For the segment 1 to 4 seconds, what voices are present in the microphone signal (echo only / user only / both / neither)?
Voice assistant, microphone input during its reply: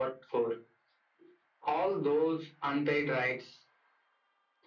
echo only